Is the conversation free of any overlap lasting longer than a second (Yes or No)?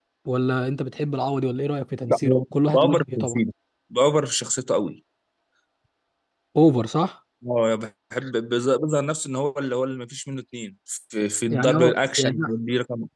No